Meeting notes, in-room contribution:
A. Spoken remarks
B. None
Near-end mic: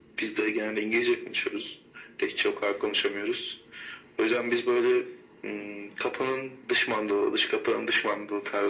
B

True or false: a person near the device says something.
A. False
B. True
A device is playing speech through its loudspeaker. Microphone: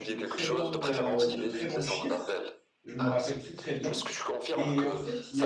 B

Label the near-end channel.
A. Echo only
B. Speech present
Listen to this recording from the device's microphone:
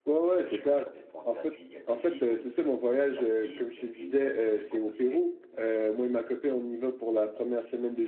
B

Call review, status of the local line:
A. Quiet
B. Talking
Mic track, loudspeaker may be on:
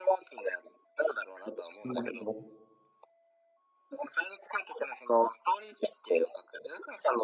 B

